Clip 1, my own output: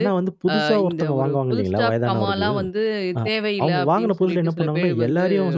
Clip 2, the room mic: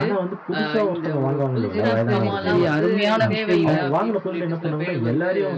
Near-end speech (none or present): present